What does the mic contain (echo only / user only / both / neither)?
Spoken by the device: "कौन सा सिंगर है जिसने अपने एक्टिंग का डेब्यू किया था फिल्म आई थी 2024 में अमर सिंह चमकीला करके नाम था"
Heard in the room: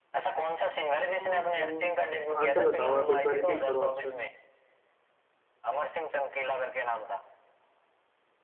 both